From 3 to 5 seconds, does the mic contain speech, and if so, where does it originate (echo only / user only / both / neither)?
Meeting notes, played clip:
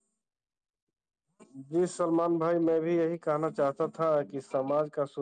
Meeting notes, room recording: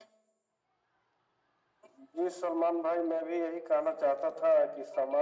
echo only